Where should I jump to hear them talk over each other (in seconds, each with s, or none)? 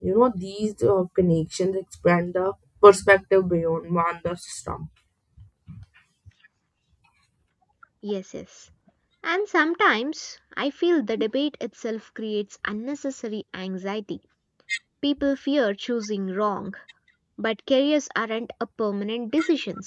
none